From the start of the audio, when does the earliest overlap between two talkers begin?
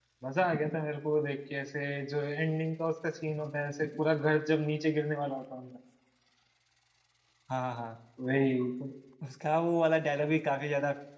none

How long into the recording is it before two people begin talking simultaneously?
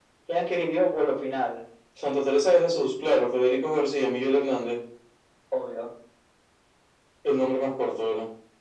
none

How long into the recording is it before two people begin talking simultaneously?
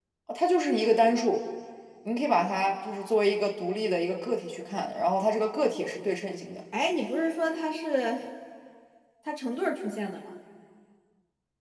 none

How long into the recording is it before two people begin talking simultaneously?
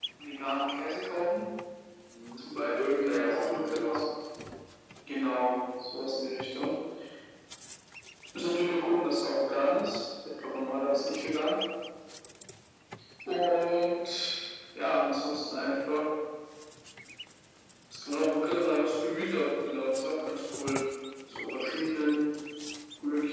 2.4 s

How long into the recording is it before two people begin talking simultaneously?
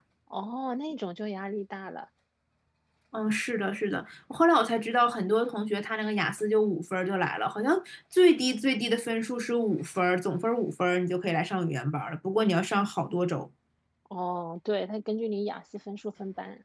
none

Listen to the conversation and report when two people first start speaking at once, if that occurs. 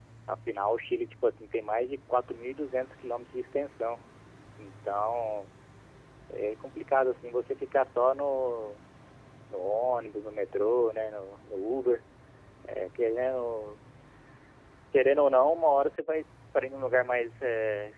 none

